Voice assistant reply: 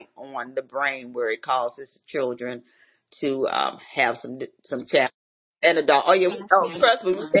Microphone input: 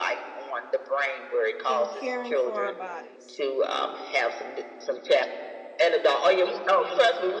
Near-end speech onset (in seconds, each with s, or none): 1.7 s